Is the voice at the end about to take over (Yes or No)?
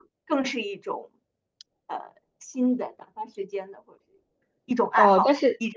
Yes